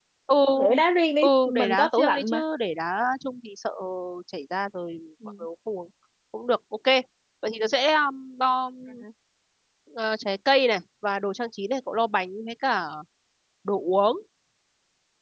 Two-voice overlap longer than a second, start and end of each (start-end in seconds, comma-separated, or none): 1.2-2.4